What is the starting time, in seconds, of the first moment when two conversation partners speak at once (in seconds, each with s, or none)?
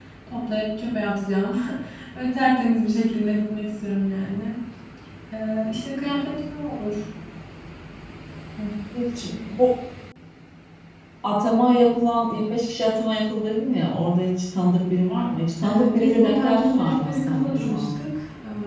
15.6 s